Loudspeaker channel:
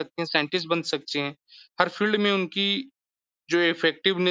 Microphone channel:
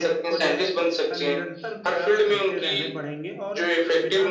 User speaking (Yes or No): Yes